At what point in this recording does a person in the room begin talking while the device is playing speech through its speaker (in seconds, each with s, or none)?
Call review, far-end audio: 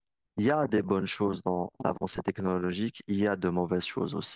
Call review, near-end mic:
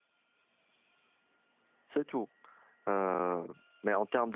1.9 s